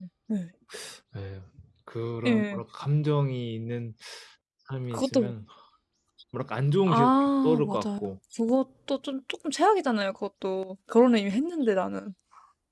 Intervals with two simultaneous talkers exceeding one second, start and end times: 6.9-8.1

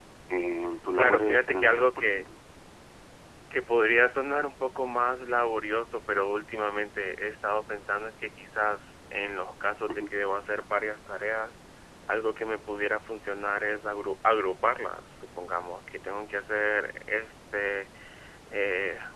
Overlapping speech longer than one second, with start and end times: 0.9-2.2

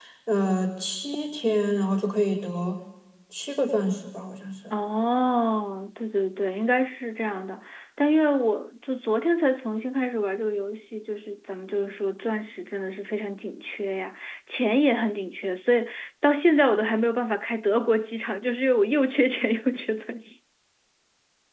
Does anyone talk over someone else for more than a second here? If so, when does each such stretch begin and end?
none

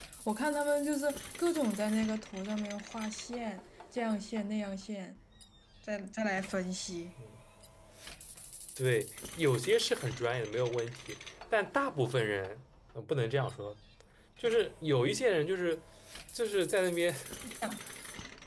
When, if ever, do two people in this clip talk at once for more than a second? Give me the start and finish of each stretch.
none

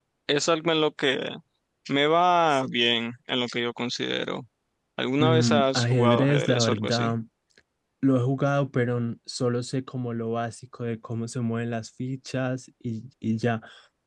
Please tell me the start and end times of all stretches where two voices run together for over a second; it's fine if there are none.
5.2-7.1

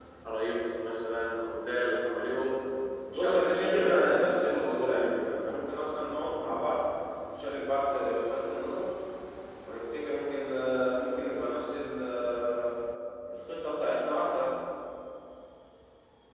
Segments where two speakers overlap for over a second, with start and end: 3.1-5.5

